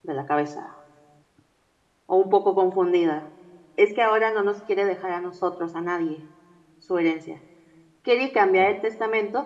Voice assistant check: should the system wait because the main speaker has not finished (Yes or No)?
Yes